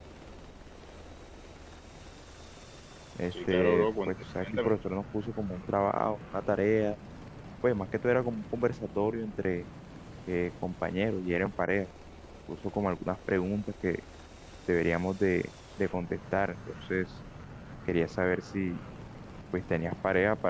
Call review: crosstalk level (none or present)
present